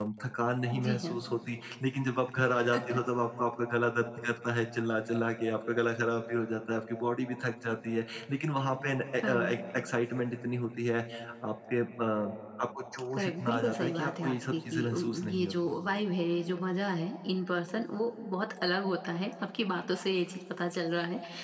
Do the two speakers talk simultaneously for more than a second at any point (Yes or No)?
Yes